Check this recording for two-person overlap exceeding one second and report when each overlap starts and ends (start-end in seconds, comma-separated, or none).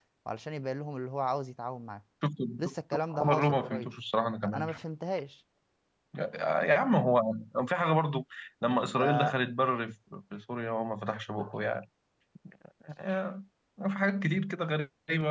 2.6-3.9